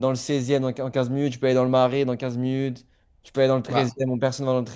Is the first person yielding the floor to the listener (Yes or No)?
No